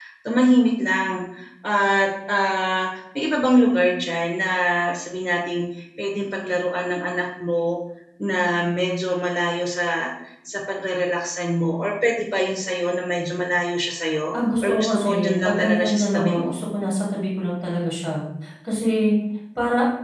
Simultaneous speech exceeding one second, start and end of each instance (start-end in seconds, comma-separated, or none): 14.6-16.6